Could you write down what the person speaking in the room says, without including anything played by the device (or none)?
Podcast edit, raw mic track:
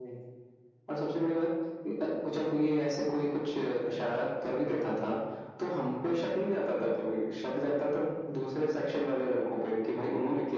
none